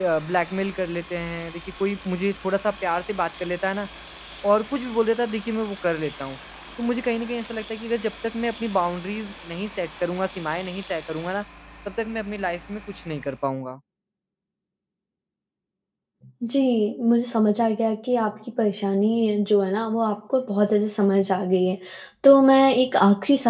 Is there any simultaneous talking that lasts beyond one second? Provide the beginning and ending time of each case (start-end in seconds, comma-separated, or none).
none